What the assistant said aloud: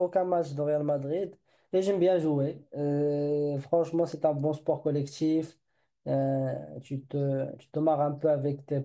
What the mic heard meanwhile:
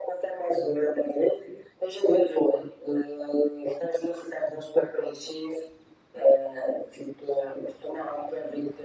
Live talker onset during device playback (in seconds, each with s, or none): none